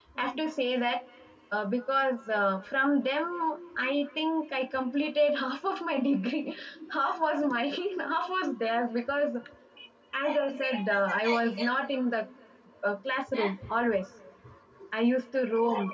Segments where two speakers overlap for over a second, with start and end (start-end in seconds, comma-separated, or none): 10.7-12.0